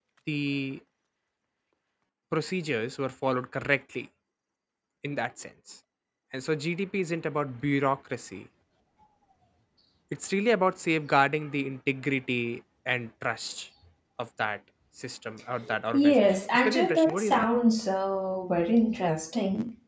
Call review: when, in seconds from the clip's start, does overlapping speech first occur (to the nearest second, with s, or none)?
16 s